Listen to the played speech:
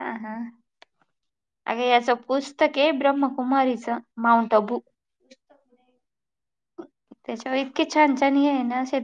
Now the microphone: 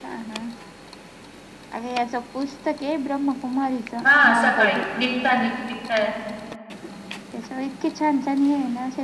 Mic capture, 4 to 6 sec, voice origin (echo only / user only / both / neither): both